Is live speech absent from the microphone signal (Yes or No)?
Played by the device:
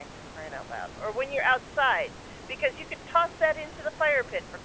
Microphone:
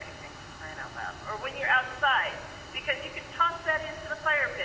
Yes